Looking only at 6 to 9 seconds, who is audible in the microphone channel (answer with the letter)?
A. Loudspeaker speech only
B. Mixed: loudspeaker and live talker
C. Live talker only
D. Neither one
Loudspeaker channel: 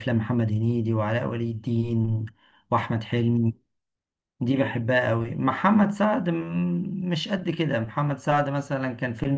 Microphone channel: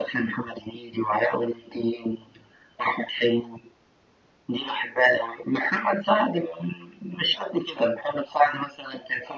A